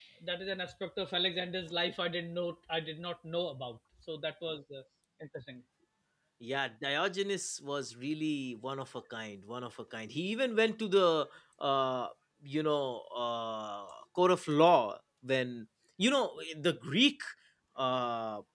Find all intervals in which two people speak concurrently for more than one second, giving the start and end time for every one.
none

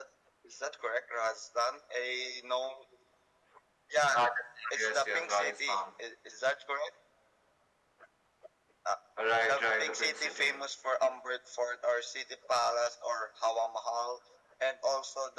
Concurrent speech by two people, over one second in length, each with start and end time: 4.8-6.0, 9.5-10.7

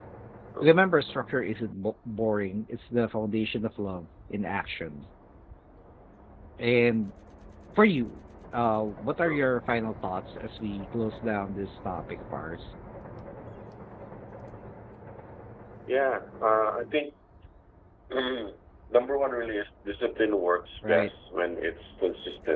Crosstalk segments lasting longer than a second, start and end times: none

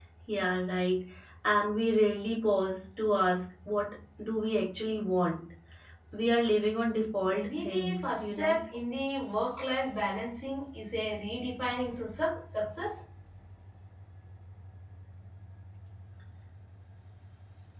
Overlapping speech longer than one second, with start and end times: 7.3-8.6

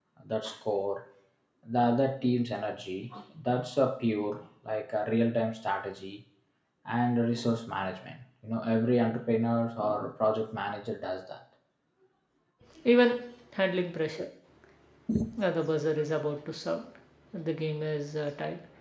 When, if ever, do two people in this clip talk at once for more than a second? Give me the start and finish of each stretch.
none

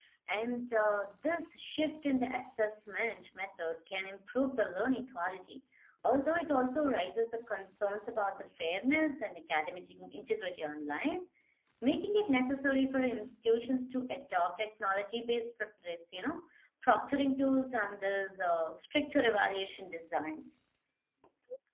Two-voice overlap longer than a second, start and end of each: none

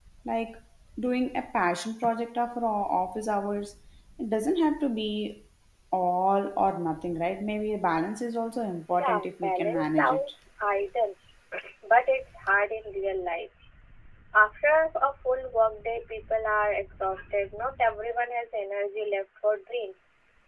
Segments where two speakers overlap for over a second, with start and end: 9.0-10.2

